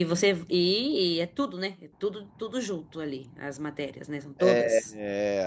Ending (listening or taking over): taking over